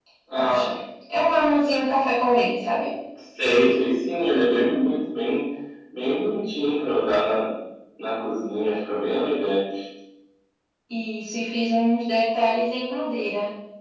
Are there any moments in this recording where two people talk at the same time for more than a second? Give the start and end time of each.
none

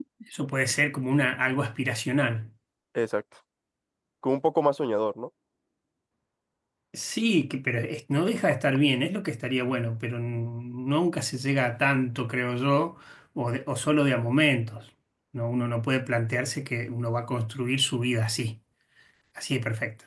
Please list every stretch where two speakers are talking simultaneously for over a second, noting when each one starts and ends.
none

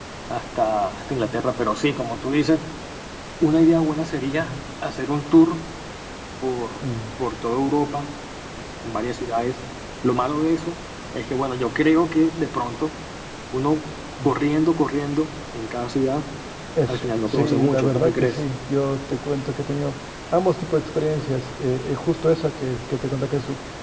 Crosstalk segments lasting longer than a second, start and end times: 16.8-18.4

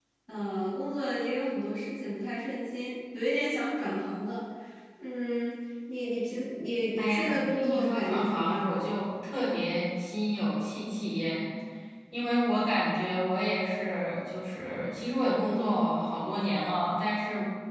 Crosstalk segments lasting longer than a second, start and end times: 7.0-8.8

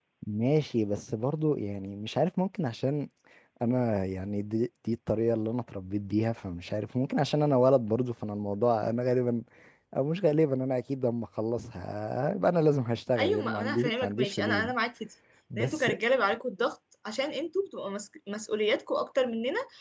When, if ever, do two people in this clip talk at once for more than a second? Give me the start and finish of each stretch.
13.2-14.7

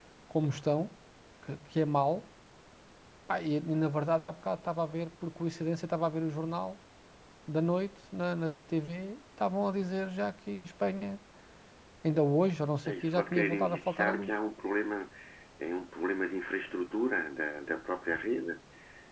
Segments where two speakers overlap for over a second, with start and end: 12.8-14.3

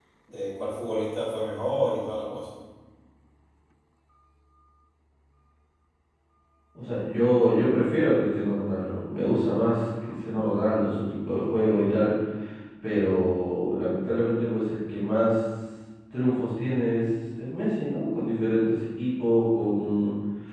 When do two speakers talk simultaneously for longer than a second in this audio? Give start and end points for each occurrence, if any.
none

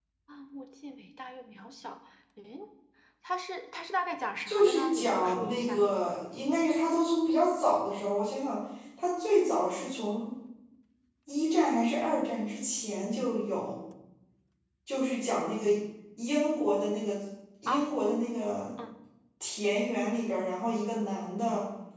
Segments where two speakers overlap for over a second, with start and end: 4.5-5.9

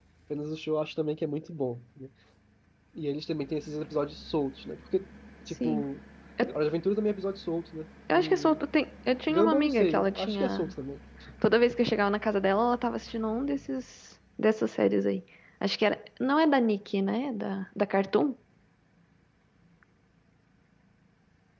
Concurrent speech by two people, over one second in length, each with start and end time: 9.3-10.7

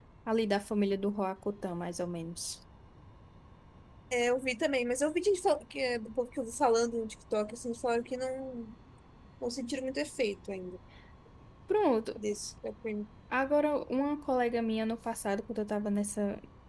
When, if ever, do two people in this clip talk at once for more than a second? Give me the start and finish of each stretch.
none

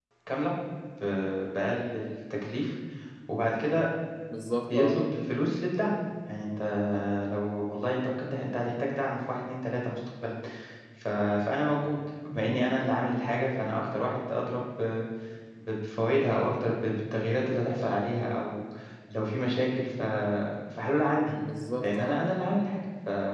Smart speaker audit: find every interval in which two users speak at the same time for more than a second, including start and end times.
none

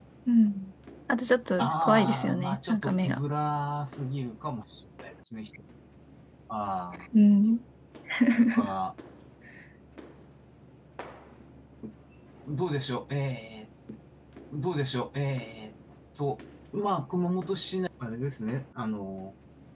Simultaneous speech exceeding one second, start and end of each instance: 1.6-3.2

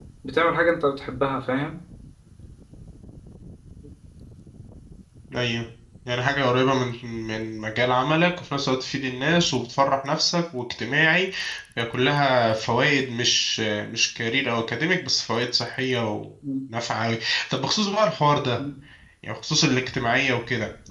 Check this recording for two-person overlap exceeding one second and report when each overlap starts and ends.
none

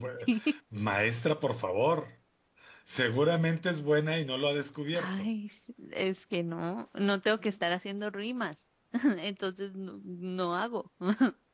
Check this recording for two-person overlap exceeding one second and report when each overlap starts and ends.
none

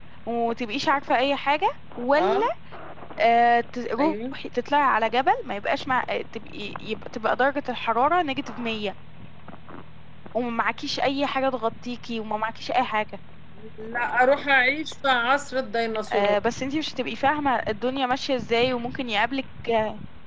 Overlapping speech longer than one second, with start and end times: none

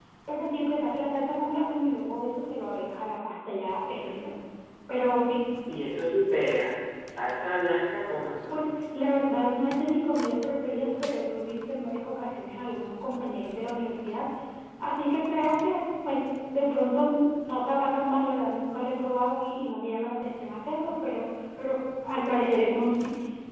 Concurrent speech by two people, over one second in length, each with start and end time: none

